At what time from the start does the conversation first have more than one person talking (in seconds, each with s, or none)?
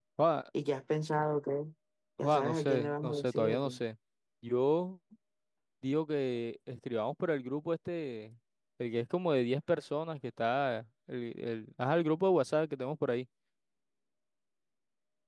2.2 s